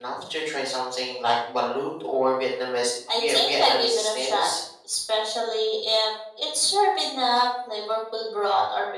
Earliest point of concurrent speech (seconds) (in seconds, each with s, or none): 3.1 s